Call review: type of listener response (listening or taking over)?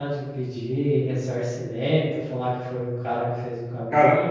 taking over